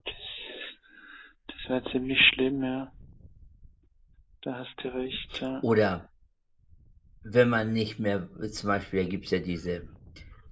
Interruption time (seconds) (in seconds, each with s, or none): none